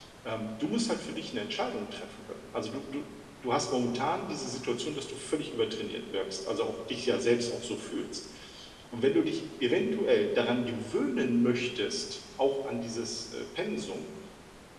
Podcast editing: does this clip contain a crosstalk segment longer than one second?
No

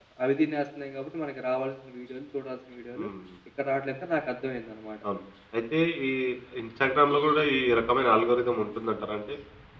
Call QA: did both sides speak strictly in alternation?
Yes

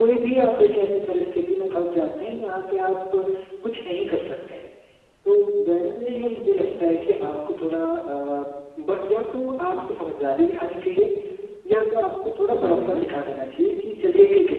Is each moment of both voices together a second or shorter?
No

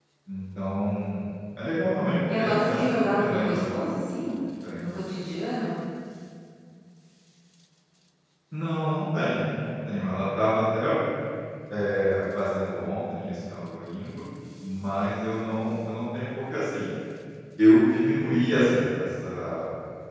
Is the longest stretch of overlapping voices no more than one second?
No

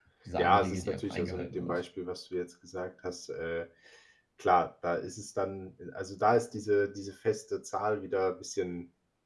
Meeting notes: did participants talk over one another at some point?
Yes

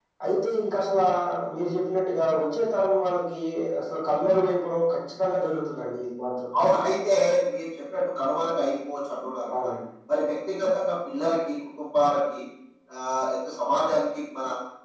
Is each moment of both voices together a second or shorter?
Yes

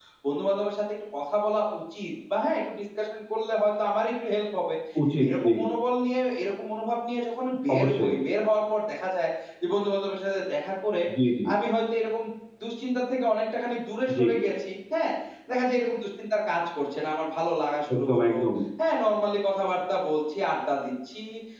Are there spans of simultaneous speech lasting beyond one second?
No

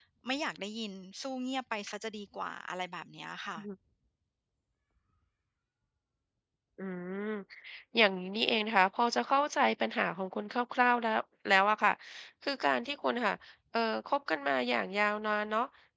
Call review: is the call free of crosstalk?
Yes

